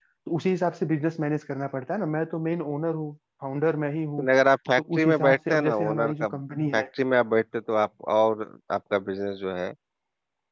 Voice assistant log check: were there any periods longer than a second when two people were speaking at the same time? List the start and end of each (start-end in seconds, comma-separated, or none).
4.8-6.3